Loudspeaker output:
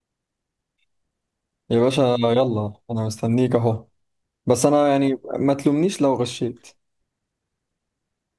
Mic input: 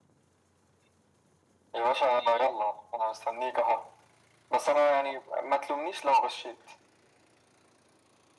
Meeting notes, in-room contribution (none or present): none